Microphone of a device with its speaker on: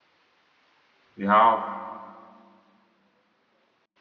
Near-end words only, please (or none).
we have